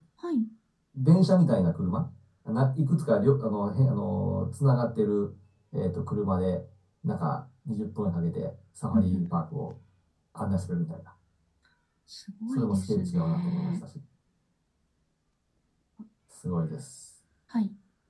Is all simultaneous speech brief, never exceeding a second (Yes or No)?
No